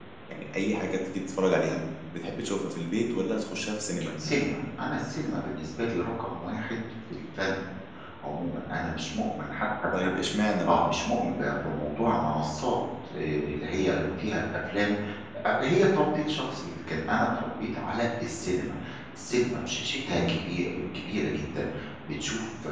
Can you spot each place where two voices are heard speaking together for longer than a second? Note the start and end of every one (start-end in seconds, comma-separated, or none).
none